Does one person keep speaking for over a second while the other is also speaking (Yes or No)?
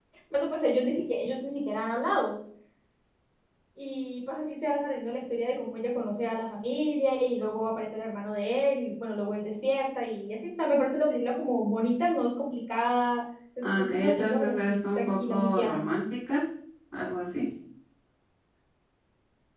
Yes